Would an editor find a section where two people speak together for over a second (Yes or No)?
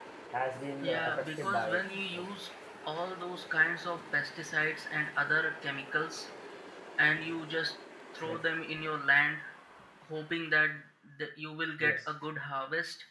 Yes